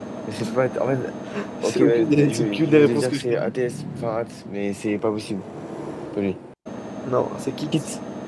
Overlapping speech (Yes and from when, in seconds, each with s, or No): Yes, from 1.6 s